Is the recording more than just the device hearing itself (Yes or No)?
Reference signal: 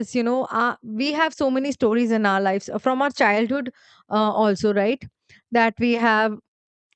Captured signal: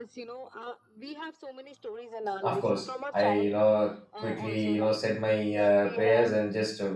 Yes